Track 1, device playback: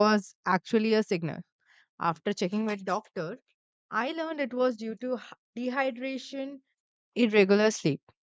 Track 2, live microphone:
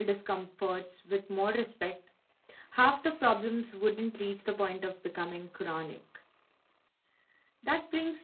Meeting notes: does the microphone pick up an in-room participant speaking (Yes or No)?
Yes